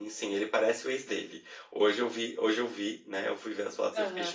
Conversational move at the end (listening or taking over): listening